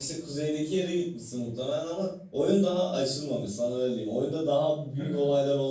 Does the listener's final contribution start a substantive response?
No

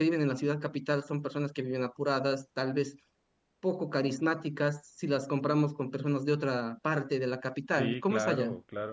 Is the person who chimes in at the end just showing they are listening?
No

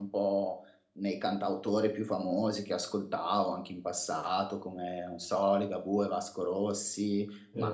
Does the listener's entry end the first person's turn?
No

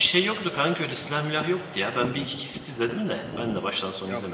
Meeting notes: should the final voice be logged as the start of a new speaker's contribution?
Yes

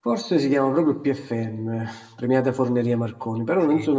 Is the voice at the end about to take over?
No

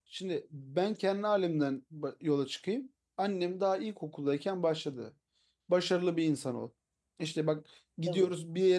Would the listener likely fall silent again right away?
Yes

